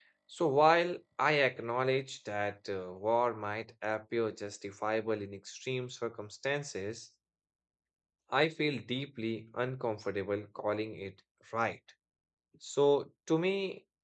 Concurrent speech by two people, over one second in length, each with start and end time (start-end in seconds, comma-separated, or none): none